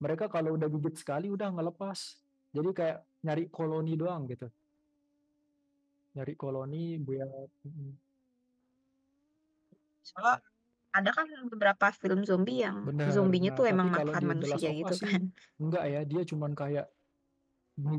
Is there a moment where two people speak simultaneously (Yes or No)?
Yes